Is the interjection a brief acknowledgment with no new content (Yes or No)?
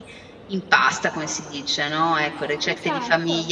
Yes